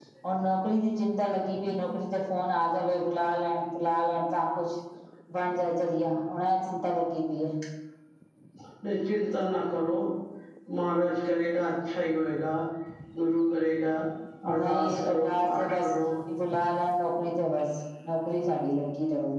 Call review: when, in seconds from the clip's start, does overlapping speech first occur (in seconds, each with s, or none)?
14.5 s